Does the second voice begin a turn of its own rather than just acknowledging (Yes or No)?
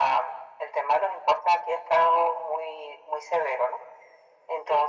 No